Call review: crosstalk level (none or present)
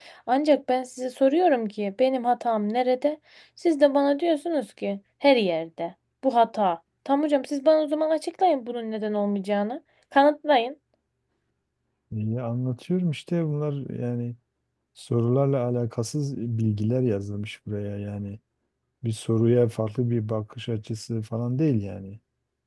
none